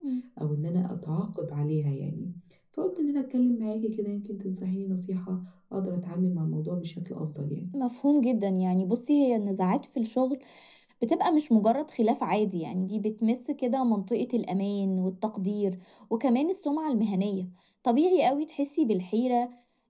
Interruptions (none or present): none